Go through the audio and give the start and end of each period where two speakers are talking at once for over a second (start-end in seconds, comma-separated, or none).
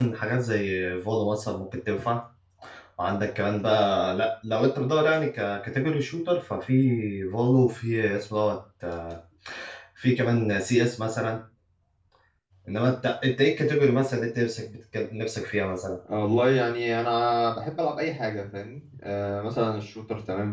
none